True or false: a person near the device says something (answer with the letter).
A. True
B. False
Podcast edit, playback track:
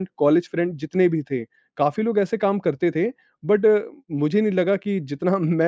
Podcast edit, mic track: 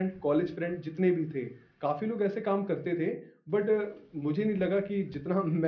B